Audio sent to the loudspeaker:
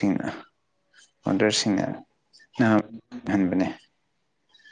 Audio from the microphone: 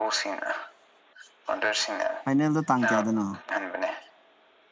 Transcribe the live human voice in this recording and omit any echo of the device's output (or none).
ꯐꯥꯏꯅꯦꯜꯗ ꯇꯥꯡ ꯀꯌꯥꯗꯅꯣ